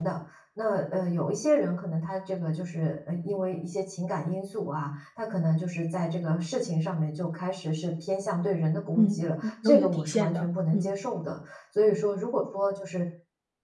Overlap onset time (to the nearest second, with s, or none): 9 s